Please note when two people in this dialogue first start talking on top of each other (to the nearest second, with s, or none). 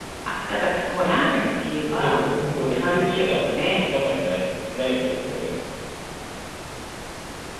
2 s